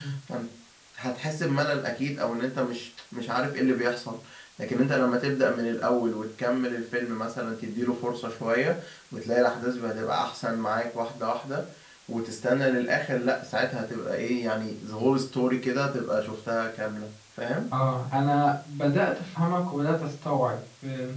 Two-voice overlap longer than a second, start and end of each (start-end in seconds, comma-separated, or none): none